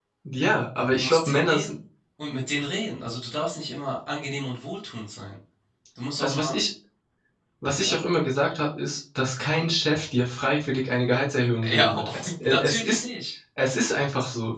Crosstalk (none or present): present